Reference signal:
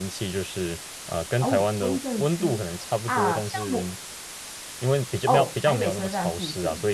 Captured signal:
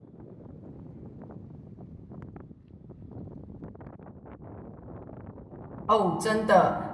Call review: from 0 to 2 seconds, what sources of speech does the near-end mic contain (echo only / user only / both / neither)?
neither